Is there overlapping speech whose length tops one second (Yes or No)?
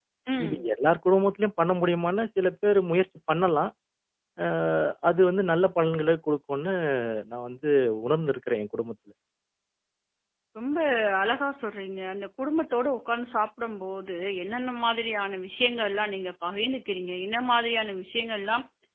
No